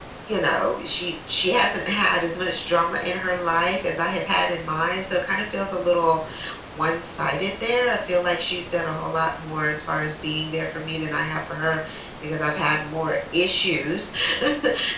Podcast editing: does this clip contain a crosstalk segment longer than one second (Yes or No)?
No